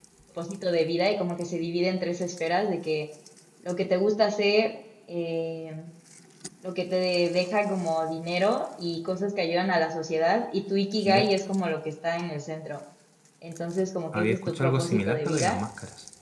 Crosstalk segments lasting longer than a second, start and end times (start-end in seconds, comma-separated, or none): 14.1-15.6